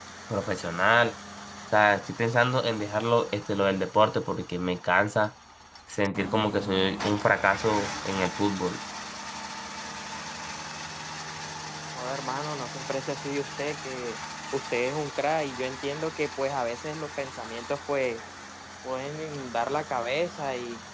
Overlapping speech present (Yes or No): No